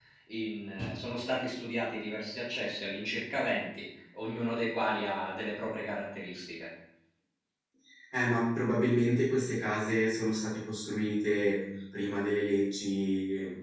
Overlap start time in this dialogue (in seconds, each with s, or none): none